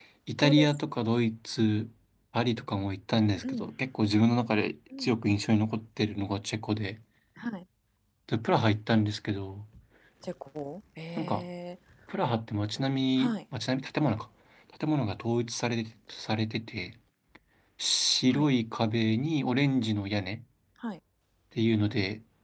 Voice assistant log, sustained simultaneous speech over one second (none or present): none